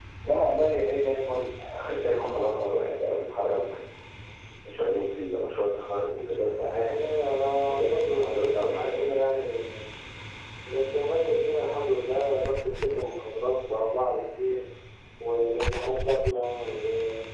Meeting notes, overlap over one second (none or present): present